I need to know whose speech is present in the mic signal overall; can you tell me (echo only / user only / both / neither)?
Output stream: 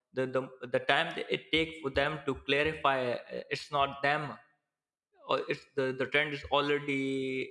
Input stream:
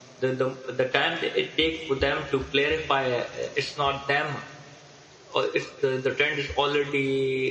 echo only